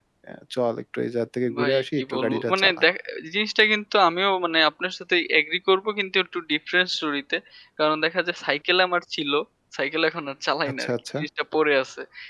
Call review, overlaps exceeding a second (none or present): present